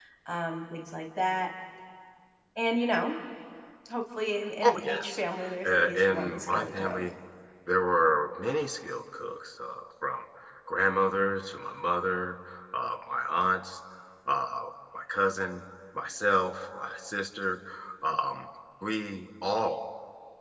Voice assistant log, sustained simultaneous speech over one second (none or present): present